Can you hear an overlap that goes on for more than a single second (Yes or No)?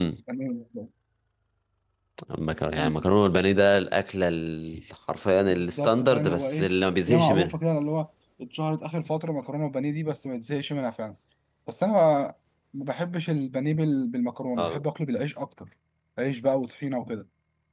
Yes